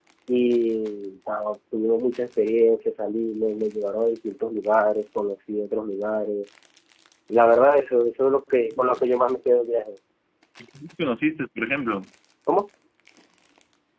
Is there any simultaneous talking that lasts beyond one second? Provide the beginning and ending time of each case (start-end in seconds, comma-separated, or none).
none